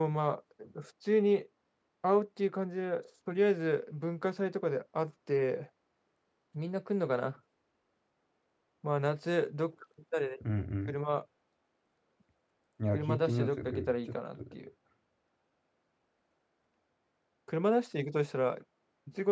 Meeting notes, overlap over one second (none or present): present